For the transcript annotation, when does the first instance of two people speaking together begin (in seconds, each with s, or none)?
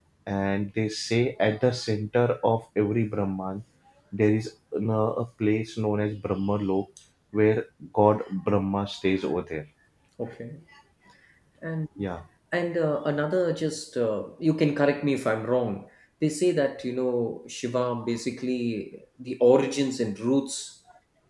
none